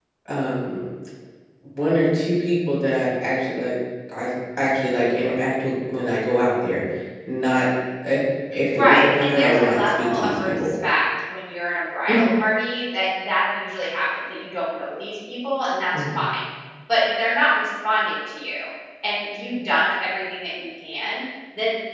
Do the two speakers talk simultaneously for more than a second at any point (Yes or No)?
Yes